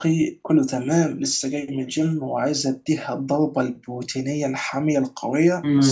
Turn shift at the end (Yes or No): Yes